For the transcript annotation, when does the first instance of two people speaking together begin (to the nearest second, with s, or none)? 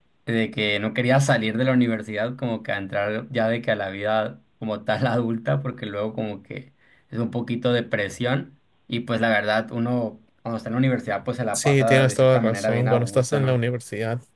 12 s